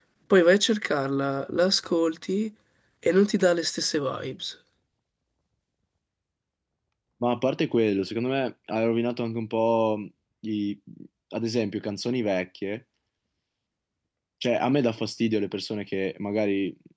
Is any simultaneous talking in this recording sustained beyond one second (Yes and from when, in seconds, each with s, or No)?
No